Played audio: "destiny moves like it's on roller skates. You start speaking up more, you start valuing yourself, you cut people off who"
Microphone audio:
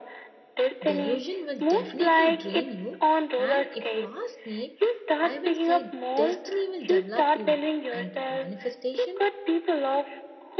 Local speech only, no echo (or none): Delusion will definitely drain you, and if you ask me, I will say destiny will develop you, and manifestation